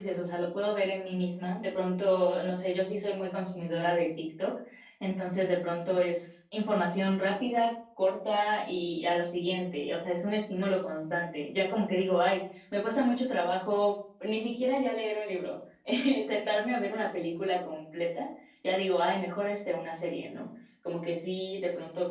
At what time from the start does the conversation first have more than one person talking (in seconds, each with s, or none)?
none